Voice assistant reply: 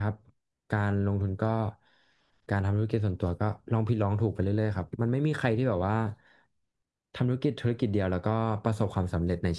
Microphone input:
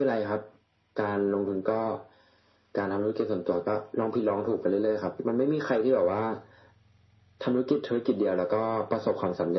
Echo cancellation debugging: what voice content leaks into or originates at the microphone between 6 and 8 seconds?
echo only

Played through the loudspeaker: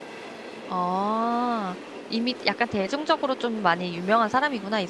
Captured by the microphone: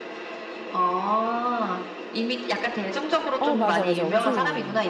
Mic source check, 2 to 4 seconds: both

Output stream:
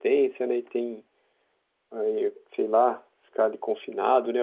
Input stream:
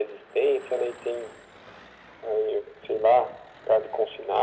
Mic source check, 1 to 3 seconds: echo only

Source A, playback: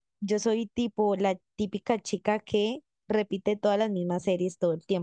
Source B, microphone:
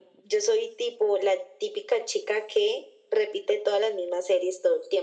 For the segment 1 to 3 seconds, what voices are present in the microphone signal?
echo only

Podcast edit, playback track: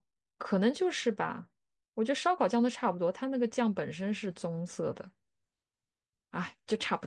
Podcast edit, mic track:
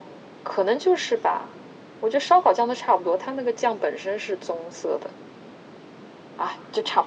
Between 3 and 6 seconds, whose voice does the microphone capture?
echo only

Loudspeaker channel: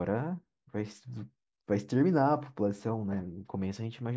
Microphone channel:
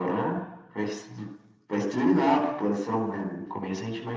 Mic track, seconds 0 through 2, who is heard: echo only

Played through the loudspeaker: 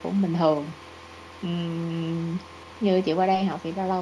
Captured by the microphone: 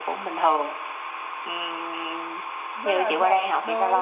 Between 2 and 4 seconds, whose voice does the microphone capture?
both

